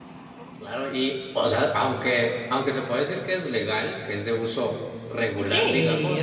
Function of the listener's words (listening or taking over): taking over